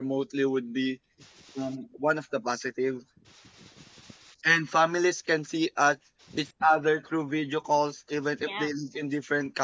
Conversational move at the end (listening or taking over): listening